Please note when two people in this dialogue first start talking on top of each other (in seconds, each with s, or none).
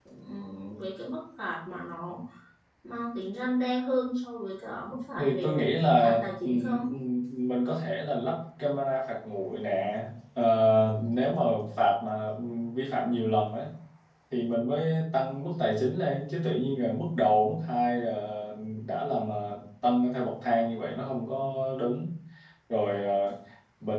5.2 s